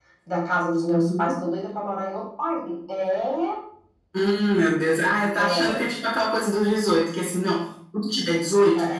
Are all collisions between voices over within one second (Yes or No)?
Yes